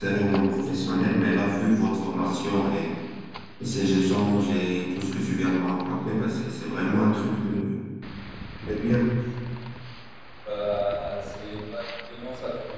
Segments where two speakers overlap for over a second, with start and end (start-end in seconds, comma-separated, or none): none